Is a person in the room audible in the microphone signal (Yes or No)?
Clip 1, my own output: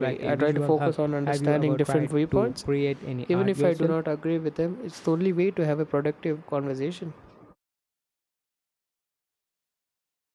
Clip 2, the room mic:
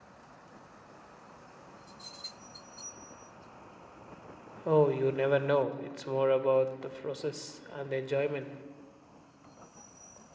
Yes